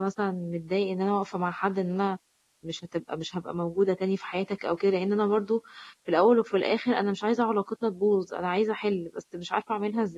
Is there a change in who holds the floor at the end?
Yes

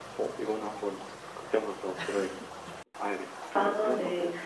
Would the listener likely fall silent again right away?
No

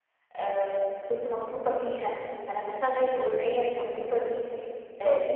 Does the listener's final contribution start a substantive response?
No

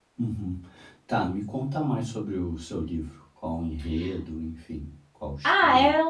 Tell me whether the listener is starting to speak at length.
Yes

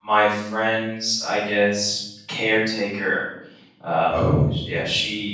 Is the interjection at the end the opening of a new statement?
No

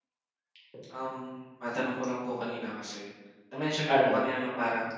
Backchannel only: Yes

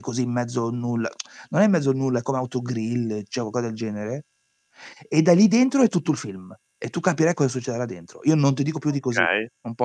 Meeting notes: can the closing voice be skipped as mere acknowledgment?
No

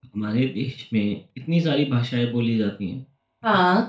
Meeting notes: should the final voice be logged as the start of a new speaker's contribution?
No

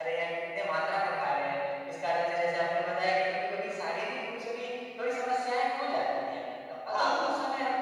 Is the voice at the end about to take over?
No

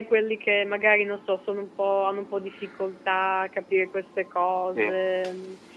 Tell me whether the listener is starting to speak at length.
No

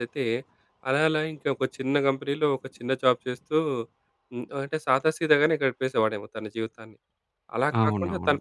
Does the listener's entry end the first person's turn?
No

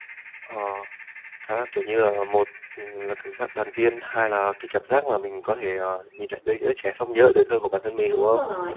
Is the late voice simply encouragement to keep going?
No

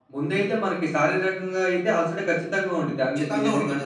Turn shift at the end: No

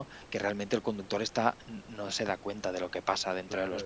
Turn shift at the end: Yes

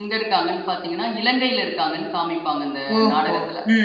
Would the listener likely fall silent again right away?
No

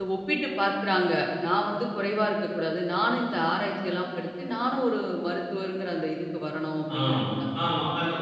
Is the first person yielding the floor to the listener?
Yes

